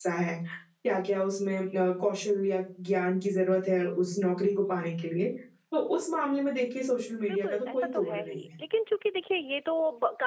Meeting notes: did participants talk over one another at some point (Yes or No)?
Yes